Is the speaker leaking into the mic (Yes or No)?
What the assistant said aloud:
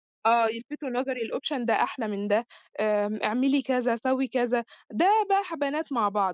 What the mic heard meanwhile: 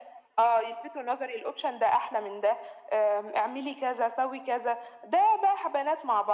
Yes